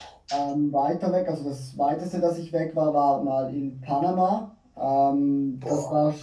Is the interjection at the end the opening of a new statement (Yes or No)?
No